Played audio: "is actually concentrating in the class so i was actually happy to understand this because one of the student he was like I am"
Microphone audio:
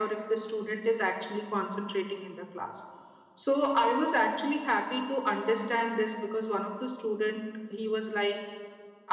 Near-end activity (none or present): none